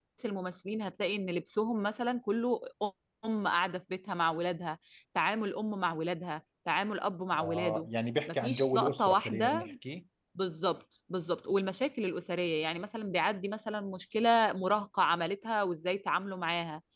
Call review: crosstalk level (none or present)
present